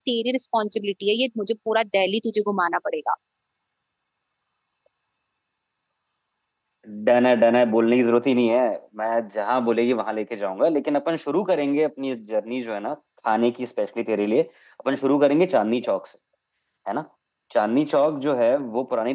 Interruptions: none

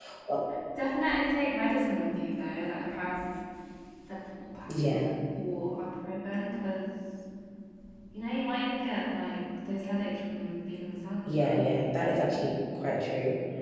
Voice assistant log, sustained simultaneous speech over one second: none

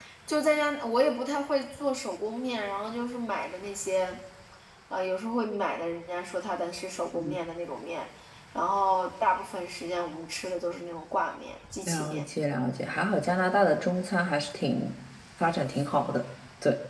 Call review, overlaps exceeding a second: none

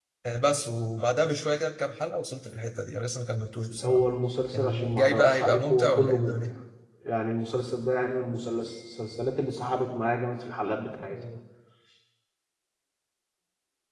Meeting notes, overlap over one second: present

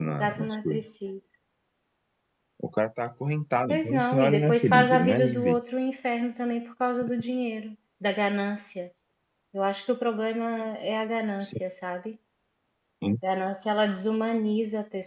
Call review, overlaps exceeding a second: present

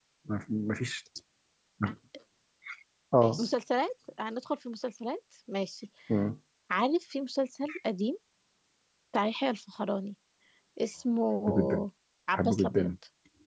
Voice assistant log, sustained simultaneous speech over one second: none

